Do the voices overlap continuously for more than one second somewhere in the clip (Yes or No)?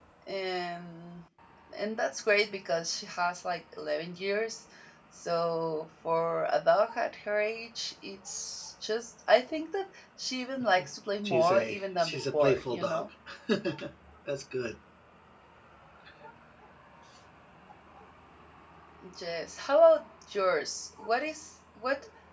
Yes